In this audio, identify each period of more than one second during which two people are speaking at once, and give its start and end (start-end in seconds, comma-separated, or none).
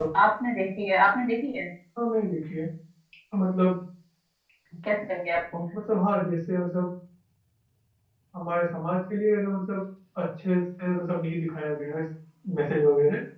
none